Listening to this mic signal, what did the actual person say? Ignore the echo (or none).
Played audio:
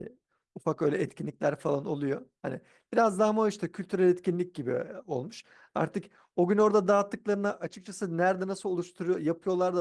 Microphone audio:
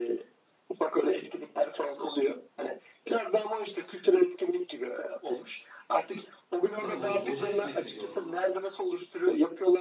Değil mi? Boca, boca etmek mi diyorlar ona?